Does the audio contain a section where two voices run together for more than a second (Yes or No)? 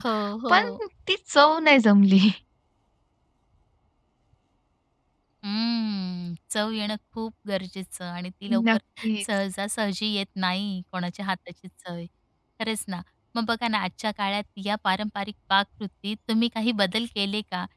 No